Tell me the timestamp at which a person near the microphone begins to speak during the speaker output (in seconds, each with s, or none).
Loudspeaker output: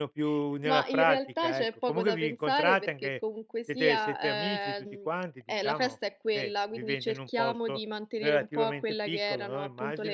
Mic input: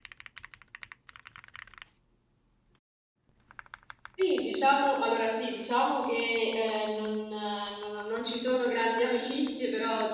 4.2 s